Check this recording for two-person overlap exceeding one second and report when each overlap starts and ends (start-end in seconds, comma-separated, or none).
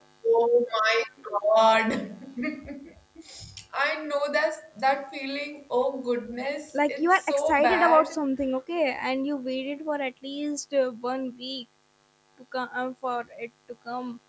6.9-8.2